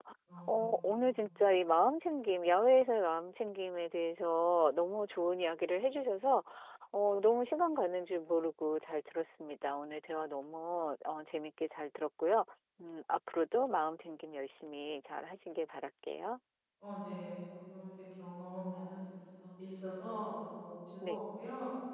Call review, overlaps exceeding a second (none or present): none